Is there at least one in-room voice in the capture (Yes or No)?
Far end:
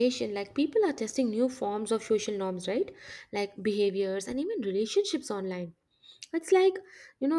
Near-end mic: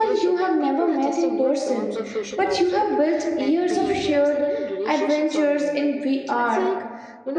Yes